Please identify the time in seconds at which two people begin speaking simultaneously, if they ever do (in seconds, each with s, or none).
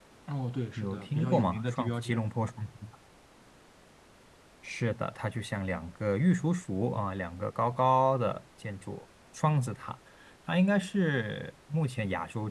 0.8 s